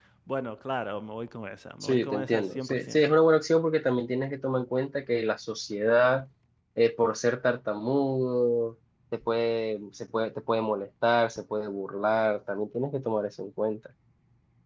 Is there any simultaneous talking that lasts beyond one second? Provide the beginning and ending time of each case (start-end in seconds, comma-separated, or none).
1.8-3.0